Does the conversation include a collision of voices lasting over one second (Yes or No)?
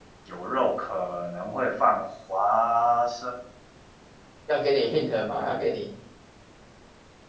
No